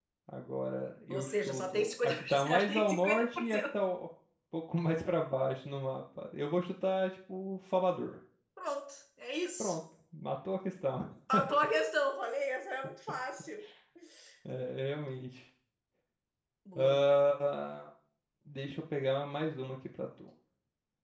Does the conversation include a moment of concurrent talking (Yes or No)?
Yes